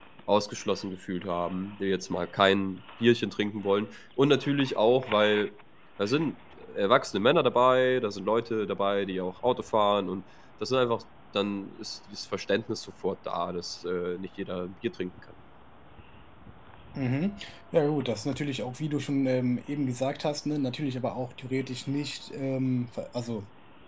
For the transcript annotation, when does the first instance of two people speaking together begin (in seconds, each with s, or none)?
none